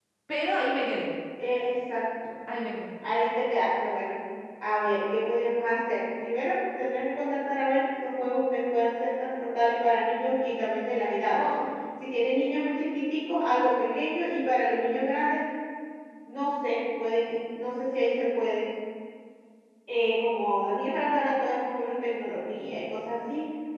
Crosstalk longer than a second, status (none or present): none